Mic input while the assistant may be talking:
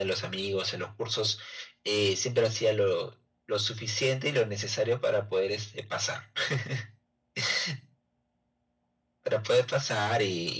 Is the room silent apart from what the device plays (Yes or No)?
Yes